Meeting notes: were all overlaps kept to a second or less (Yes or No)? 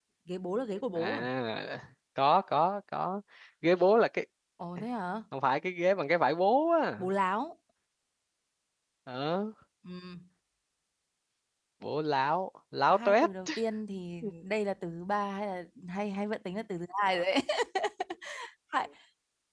Yes